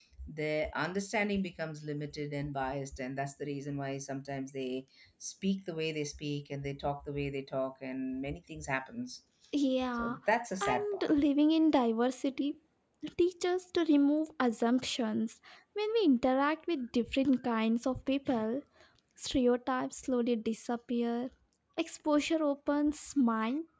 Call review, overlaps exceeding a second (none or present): none